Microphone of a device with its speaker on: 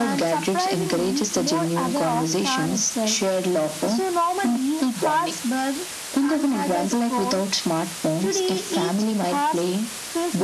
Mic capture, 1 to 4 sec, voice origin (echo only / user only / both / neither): echo only